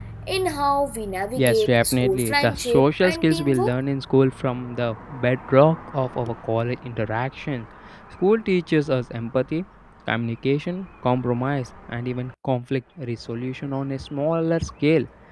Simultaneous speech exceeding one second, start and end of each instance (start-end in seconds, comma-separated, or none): 1.4-3.7